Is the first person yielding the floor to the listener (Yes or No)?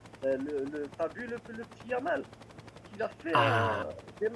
Yes